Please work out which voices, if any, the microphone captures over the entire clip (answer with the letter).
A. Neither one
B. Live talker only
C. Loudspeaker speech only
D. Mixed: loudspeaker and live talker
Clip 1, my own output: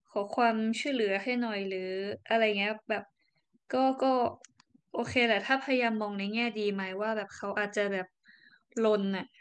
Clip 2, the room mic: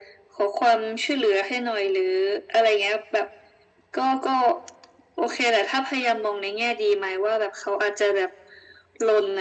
C